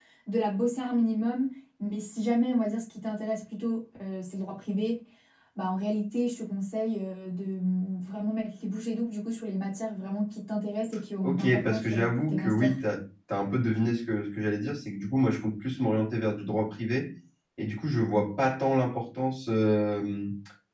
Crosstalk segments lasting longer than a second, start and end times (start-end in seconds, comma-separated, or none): 11.2-12.8